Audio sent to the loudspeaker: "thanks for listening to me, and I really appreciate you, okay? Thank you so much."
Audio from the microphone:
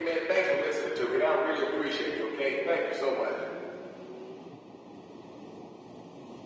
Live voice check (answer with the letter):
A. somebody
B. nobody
B